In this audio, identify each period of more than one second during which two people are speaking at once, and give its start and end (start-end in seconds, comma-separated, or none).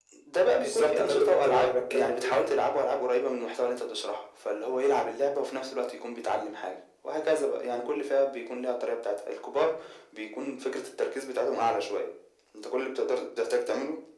0.6-2.5